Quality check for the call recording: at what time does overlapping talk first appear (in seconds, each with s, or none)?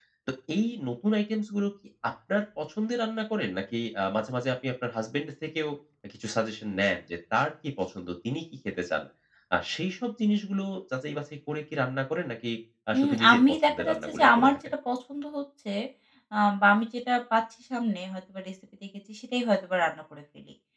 13.0 s